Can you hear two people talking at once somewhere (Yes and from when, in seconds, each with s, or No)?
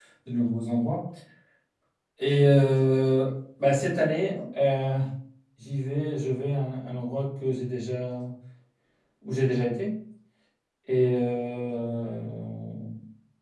No